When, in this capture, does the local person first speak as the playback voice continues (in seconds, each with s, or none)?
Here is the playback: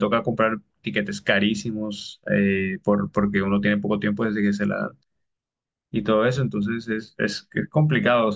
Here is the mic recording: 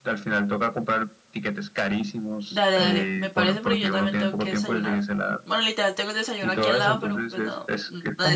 2.5 s